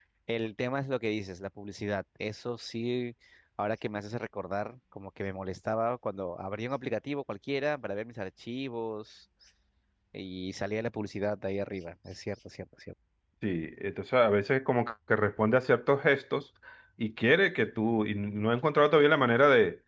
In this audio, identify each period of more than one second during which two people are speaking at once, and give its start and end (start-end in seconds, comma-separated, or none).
none